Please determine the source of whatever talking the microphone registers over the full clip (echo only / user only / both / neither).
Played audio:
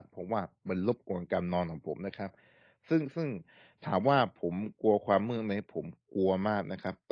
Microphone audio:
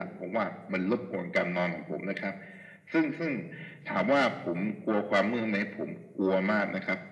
echo only